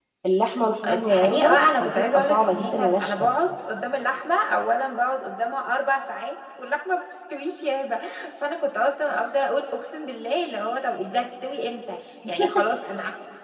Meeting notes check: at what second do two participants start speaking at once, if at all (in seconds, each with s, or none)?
1.0 s